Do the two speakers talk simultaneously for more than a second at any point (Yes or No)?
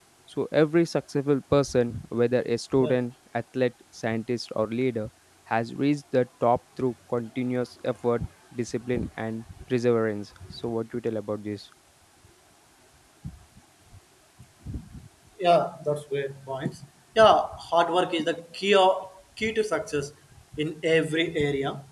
No